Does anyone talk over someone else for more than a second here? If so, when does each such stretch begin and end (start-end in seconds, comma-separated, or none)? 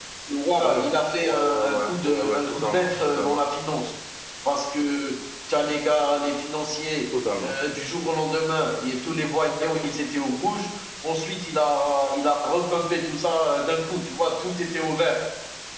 1.2-3.4